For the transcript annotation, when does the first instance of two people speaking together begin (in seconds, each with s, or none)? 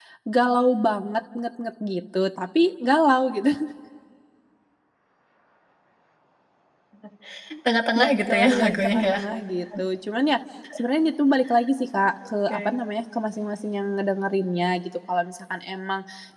8.0 s